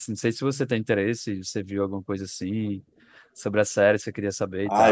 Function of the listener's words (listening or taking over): taking over